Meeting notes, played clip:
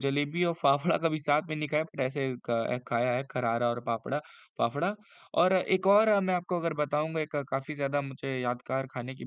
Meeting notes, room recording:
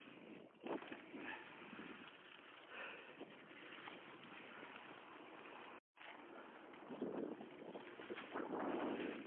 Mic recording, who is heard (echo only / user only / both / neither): neither